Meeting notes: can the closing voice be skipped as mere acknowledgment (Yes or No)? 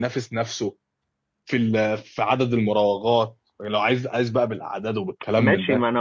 No